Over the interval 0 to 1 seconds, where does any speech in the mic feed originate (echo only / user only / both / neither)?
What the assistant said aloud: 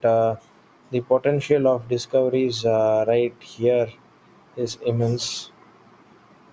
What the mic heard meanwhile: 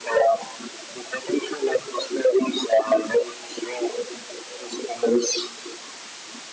echo only